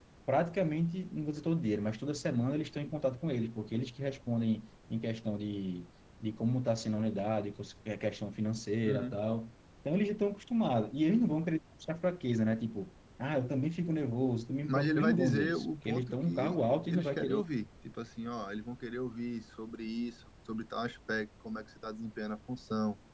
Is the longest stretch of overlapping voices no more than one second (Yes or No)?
No